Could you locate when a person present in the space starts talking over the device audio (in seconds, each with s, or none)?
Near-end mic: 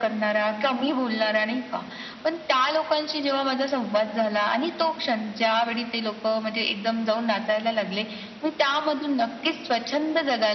none